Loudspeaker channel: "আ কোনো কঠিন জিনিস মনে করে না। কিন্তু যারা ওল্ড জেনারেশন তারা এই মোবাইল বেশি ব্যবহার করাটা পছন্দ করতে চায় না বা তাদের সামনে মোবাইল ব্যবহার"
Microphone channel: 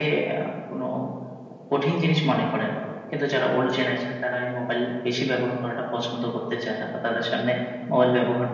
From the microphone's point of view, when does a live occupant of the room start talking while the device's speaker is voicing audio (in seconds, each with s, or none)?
none